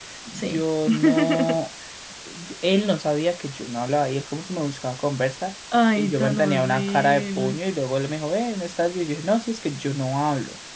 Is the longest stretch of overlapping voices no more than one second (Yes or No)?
No